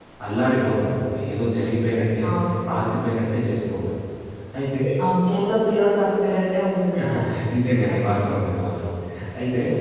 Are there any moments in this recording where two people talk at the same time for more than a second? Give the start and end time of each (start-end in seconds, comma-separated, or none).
none